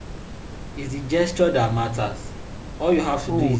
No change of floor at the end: No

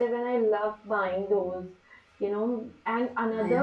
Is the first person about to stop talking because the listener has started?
No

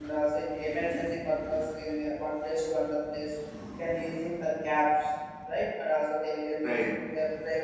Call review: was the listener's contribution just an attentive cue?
Yes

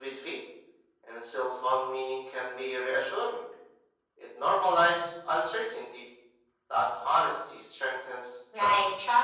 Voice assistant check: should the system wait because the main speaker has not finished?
No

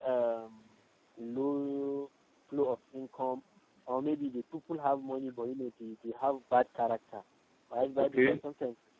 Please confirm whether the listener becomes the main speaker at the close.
No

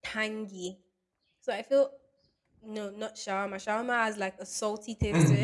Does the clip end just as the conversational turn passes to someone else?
No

